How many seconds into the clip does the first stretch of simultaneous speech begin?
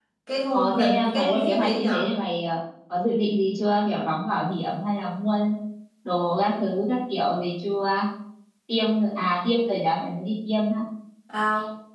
0.5 s

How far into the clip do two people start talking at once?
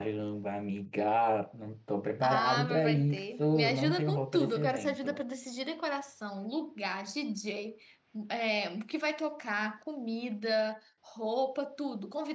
2.2 s

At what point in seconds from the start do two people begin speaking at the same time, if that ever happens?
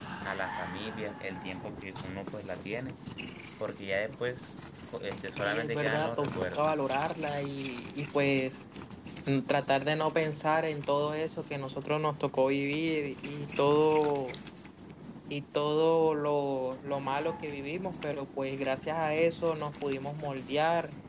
5.4 s

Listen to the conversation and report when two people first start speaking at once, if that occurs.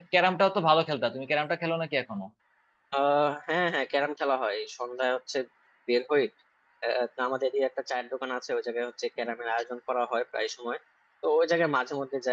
none

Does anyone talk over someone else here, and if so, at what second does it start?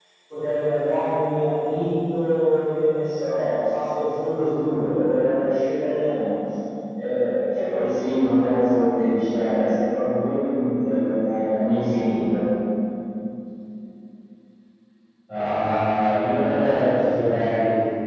none

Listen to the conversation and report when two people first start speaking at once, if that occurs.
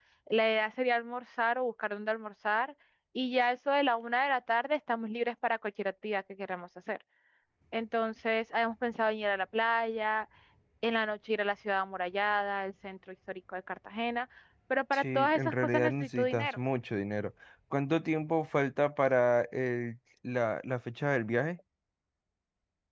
14.9 s

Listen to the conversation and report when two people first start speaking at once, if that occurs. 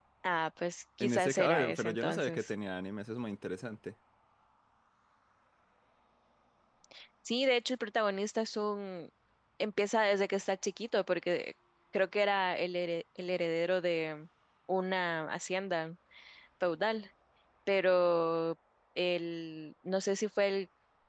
1.0 s

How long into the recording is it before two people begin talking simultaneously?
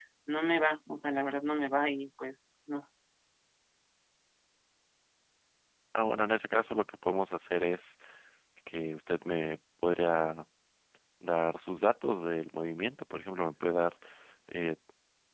none

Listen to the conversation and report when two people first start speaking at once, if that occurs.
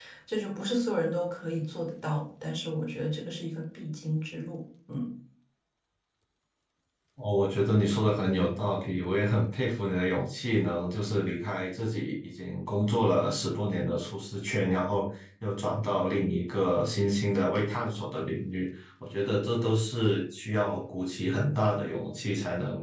none

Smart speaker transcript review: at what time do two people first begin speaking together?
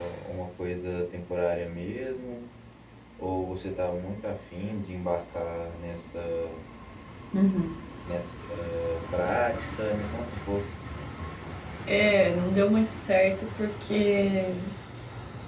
none

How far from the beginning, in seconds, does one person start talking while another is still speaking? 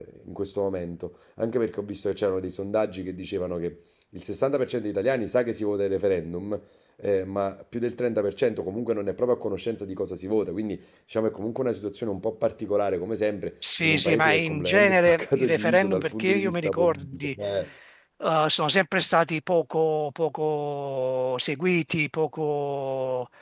13.6 s

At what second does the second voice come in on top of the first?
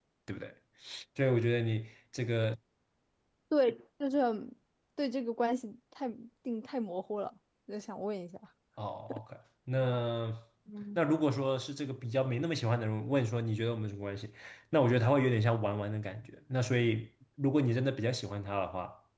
none

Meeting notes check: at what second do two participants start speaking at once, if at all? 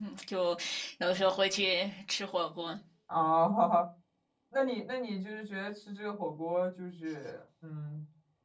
none

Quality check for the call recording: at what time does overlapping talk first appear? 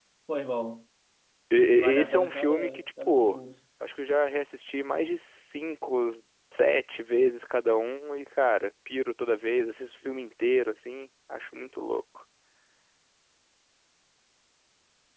1.7 s

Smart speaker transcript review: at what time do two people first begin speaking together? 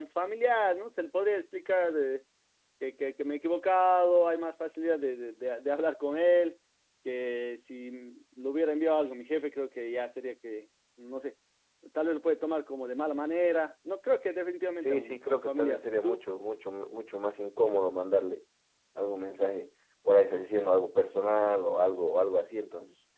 14.8 s

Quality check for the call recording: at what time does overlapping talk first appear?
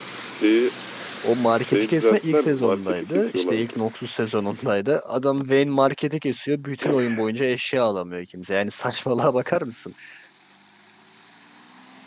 1.6 s

